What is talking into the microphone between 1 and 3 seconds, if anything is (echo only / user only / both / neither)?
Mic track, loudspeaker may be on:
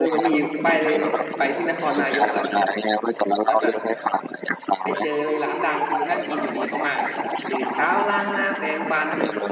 both